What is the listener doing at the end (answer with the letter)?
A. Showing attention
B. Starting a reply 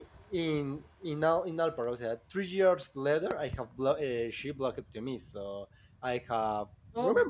A